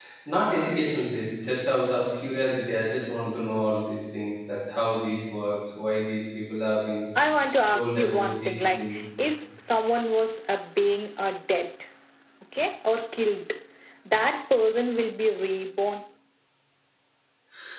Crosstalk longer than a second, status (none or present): present